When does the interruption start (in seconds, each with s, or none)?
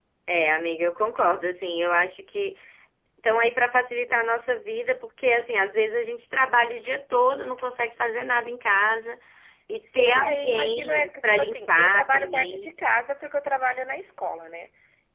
9.9 s